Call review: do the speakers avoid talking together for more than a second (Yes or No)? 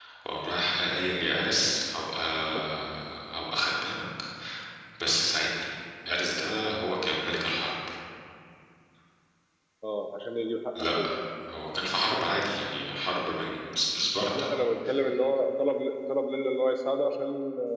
Yes